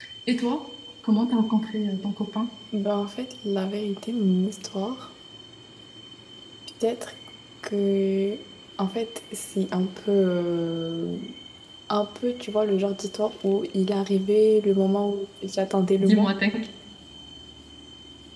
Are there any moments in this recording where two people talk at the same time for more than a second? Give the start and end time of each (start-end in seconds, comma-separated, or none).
none